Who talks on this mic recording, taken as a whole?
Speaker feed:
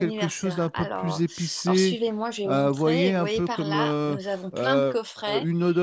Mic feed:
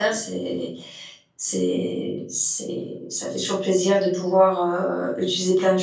user only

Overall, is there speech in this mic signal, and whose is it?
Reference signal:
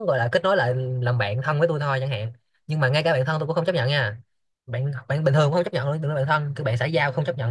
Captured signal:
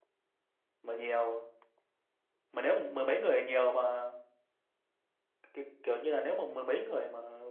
user only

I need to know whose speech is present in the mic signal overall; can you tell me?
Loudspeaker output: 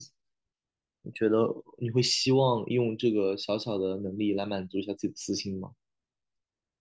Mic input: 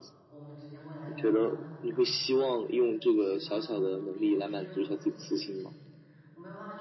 both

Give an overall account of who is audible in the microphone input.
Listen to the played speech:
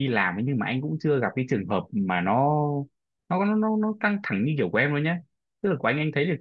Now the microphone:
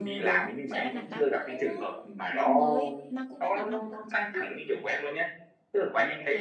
both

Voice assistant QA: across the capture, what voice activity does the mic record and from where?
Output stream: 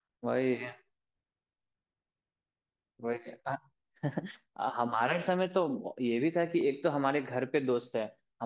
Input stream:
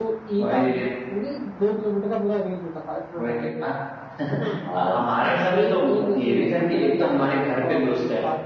both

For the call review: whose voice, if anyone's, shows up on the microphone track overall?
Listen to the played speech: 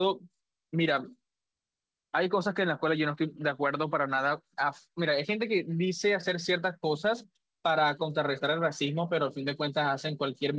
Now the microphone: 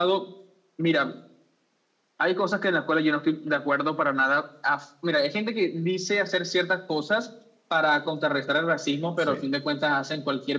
both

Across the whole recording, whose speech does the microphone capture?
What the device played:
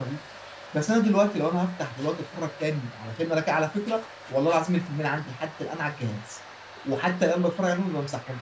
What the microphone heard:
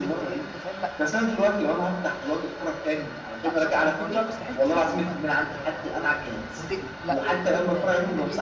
both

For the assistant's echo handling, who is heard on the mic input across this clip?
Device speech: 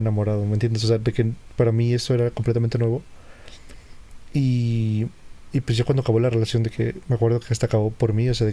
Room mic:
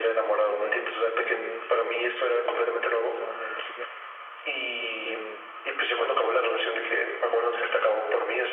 both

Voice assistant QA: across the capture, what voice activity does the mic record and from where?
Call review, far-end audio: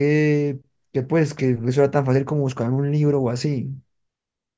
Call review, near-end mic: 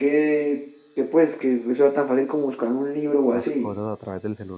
both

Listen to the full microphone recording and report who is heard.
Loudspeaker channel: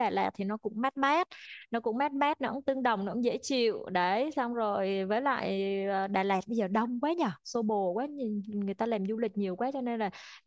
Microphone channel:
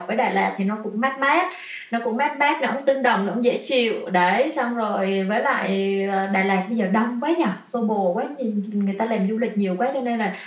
echo only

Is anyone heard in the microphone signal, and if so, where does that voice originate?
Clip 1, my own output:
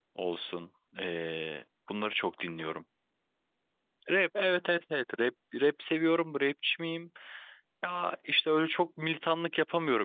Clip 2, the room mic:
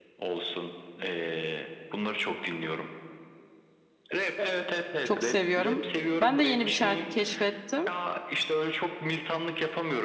both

